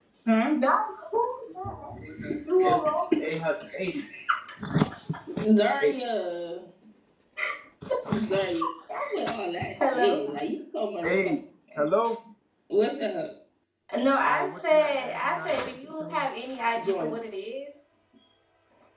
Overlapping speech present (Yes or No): Yes